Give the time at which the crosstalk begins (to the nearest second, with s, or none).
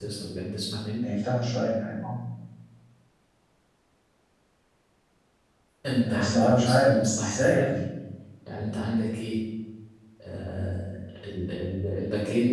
6 s